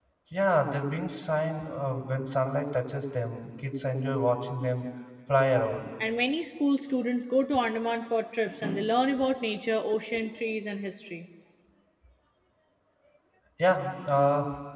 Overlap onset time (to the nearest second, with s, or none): none